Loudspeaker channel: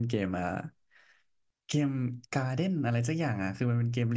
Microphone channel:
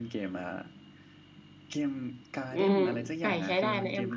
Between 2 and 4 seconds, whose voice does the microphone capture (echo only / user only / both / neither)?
both